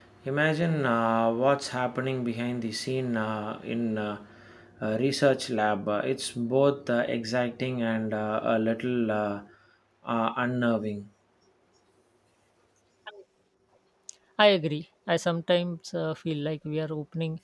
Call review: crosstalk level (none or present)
none